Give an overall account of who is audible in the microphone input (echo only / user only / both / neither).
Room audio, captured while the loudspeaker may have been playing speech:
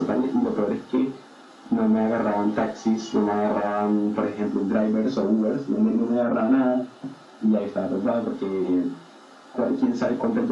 echo only